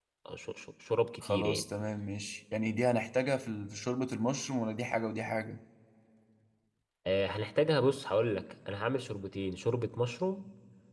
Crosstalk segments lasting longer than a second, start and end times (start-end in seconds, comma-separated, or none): none